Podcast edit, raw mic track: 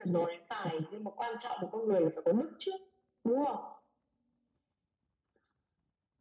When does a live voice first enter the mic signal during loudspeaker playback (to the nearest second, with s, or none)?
none